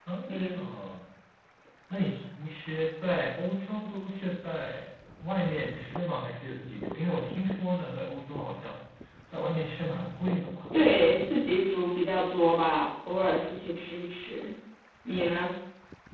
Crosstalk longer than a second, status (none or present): none